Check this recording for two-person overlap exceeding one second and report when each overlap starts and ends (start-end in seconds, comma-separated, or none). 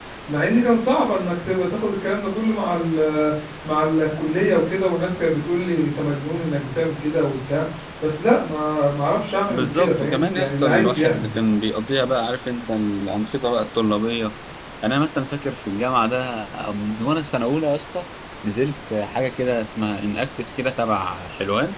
9.5-11.3